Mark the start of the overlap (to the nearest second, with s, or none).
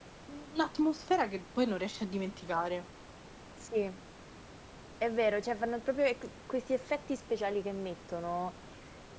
none